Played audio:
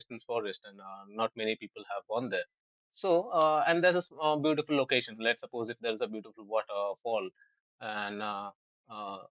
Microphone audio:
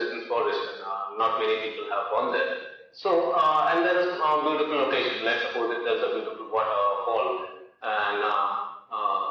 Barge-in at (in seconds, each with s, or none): none